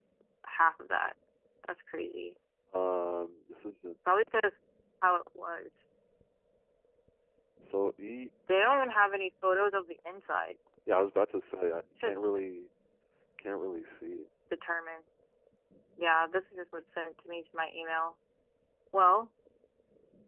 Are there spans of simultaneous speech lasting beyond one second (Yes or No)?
No